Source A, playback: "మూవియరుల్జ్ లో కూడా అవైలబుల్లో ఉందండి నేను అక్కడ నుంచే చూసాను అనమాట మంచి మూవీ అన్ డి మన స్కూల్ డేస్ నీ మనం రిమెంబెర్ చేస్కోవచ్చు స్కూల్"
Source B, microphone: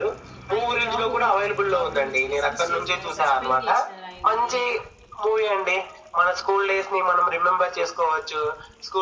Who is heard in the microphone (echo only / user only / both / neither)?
both